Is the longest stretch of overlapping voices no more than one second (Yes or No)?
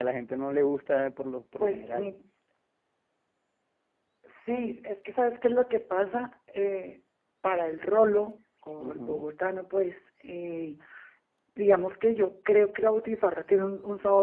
Yes